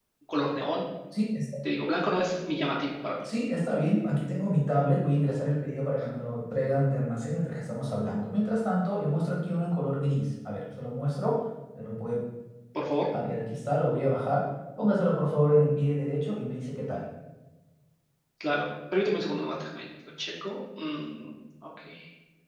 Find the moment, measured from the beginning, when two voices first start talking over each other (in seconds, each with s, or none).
none